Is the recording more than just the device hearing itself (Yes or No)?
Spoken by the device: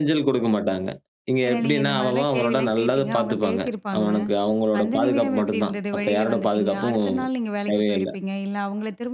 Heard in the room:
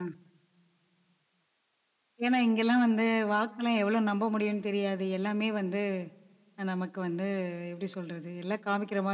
Yes